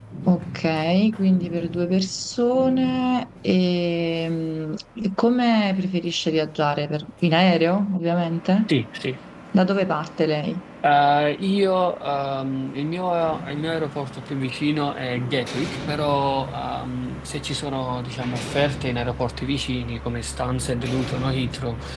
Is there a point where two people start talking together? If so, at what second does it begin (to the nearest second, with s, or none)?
none